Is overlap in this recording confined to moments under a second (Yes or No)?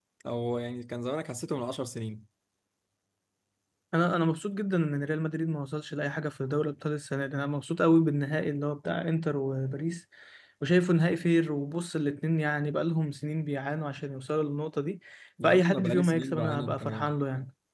No